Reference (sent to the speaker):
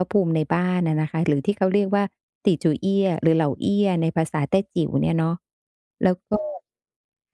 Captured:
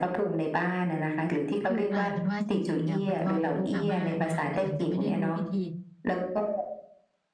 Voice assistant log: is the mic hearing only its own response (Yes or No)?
No